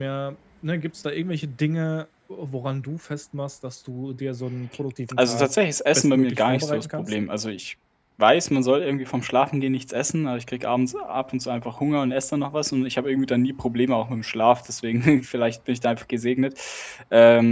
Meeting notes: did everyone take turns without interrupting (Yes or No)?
No